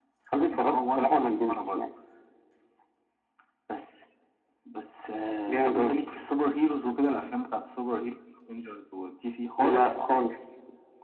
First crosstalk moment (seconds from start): 0.5 s

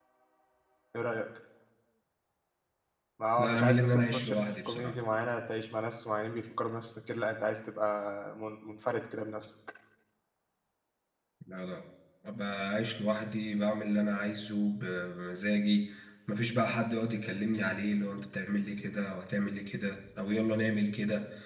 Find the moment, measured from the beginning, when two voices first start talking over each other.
3.4 s

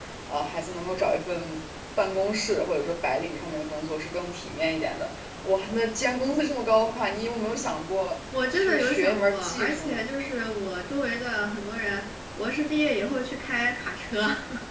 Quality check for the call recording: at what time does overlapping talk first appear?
8.3 s

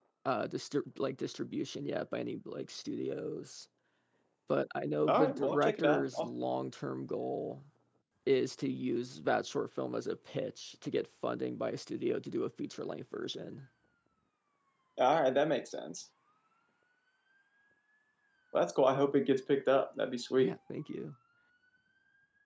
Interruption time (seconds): 5.1 s

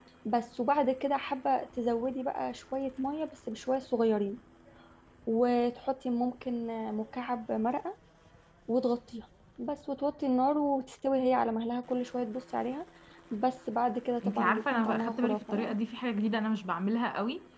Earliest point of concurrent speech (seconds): 14.2 s

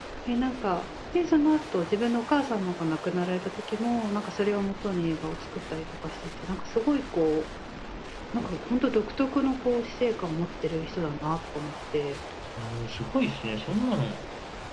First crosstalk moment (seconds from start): none

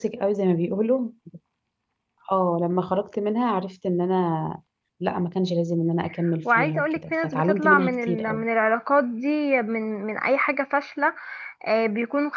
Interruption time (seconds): 6.5 s

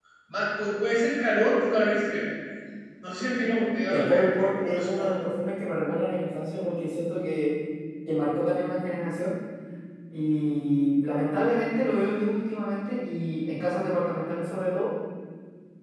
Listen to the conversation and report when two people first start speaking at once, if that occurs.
3.9 s

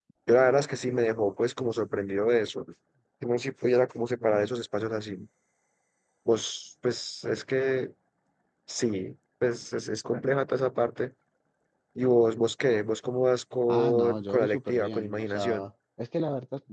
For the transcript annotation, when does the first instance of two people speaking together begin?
13.7 s

